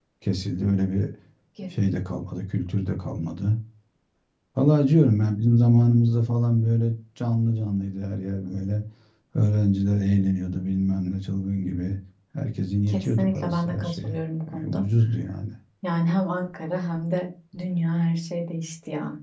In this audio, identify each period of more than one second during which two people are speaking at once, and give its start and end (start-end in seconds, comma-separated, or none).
12.9-14.2